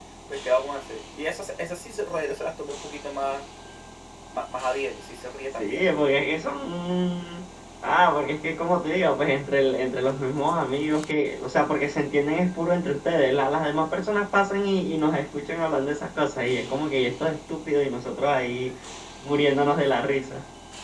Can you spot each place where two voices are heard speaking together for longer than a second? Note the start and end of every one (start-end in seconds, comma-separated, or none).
none